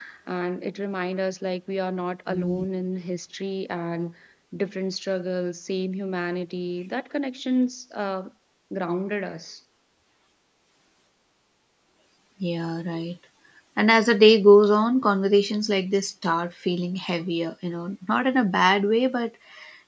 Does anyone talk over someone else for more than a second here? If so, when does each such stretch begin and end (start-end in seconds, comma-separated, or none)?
none